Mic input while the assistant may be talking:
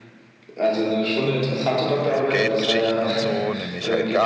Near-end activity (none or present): present